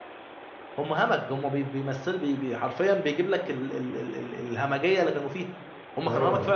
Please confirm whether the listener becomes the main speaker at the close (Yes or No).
Yes